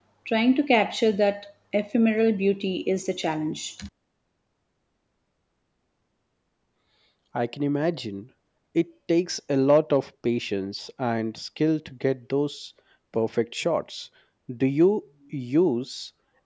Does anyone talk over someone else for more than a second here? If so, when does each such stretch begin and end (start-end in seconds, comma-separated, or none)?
none